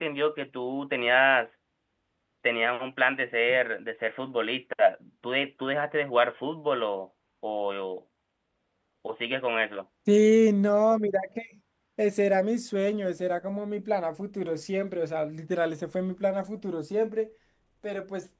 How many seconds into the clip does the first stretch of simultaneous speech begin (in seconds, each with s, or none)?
none